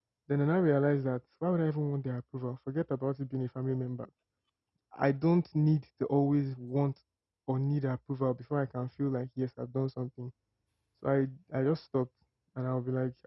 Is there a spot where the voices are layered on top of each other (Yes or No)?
No